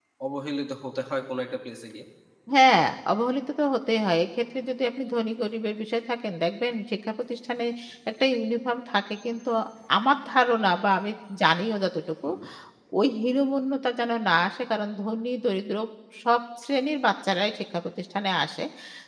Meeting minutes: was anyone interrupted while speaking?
No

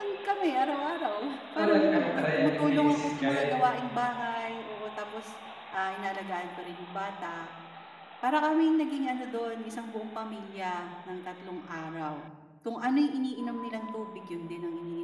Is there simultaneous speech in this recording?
Yes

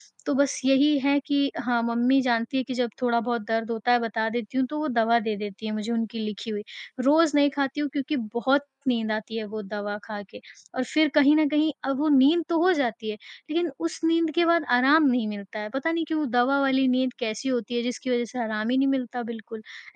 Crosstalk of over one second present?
No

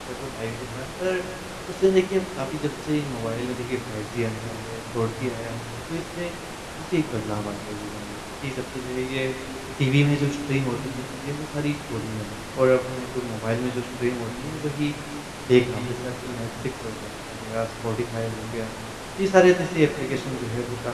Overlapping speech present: No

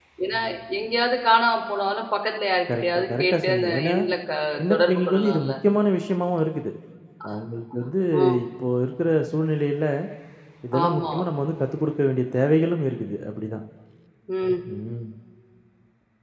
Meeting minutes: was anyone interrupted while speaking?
Yes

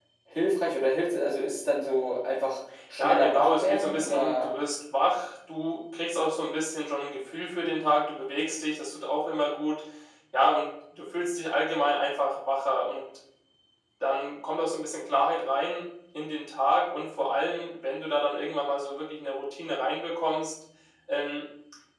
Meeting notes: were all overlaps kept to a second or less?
No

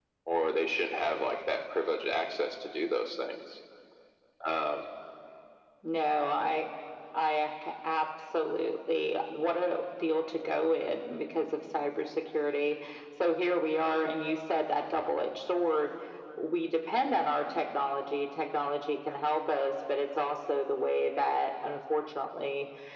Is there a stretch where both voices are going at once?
No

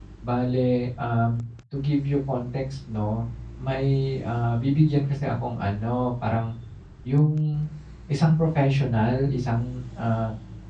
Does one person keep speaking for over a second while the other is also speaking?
No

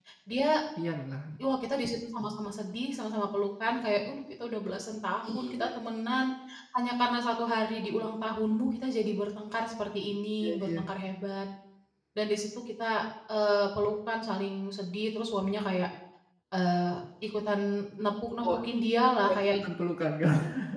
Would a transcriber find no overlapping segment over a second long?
Yes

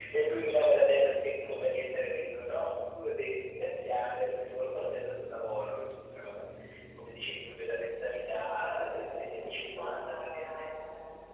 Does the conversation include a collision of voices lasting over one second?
Yes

